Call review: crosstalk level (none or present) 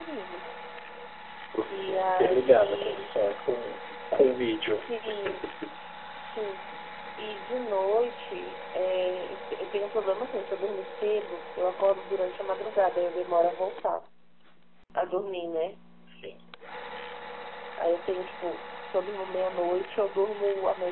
present